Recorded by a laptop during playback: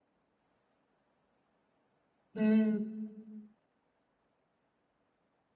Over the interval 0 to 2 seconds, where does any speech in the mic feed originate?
neither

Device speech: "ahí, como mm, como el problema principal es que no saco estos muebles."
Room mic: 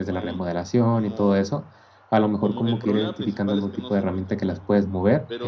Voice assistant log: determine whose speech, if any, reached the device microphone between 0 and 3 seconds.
both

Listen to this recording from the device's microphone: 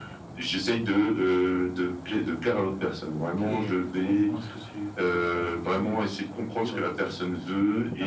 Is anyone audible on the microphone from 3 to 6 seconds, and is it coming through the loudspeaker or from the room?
echo only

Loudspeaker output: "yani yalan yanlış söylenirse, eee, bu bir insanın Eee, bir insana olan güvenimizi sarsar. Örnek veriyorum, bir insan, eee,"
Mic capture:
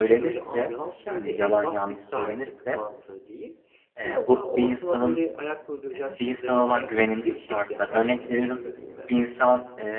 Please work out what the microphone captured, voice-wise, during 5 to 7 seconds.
both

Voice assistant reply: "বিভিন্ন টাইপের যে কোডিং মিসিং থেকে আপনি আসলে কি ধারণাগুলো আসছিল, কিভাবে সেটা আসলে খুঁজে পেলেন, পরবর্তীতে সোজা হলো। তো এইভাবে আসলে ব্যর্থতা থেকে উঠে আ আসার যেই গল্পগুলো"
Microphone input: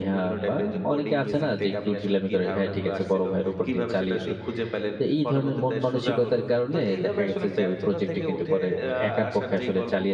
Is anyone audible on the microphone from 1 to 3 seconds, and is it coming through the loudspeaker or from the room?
both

